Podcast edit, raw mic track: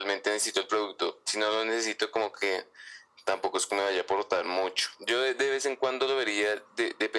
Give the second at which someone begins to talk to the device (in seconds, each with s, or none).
none